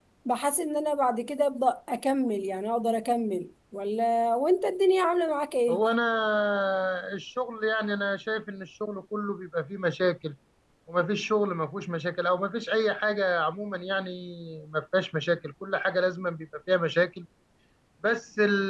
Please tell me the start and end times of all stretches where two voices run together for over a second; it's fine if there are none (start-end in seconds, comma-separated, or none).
none